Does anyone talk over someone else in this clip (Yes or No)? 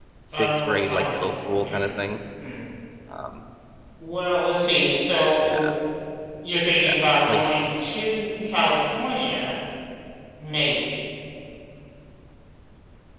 Yes